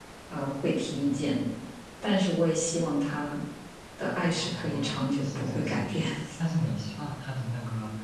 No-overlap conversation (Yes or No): No